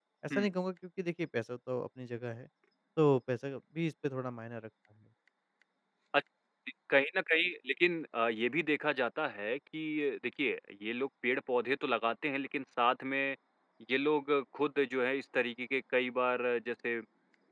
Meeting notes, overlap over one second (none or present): none